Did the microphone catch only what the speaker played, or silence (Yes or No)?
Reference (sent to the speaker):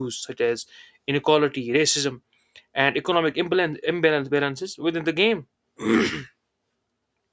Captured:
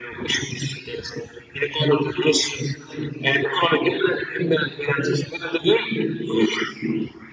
Yes